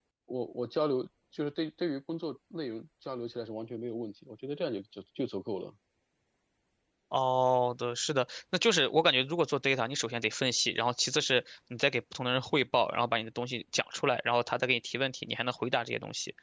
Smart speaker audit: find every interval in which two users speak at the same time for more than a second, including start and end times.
none

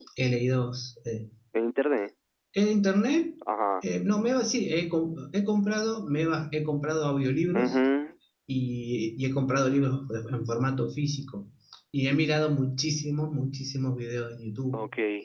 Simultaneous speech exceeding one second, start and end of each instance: none

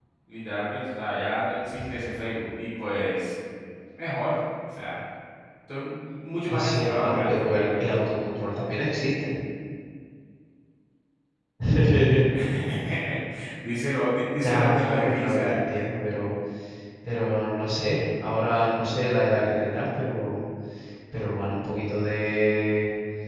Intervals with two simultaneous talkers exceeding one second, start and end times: 6.5-7.8, 14.4-15.7

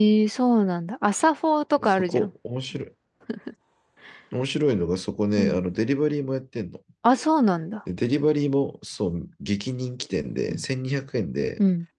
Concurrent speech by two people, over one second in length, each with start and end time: none

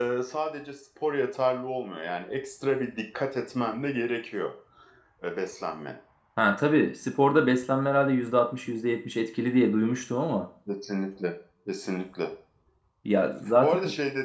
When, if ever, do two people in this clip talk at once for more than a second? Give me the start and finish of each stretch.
none

